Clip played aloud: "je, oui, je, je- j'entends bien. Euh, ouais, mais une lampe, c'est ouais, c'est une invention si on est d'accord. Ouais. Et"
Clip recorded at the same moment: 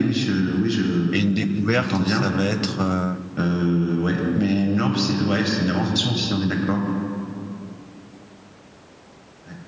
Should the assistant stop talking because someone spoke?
Yes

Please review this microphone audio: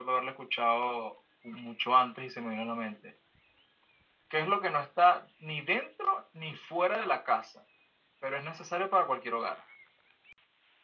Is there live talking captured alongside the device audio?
No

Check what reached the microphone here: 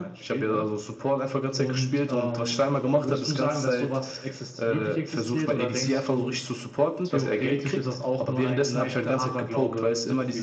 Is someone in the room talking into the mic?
No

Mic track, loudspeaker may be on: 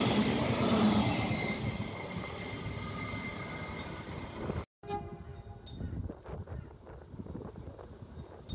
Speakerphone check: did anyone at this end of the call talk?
No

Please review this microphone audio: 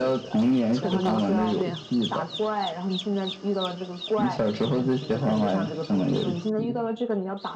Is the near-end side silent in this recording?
No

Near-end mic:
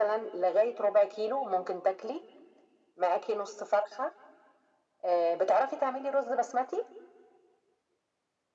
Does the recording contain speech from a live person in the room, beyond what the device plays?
No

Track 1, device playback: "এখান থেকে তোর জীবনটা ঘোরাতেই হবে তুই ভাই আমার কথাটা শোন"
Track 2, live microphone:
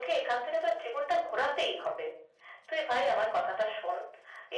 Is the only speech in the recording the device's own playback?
Yes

